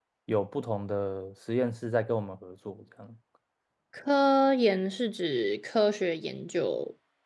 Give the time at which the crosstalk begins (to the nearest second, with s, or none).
none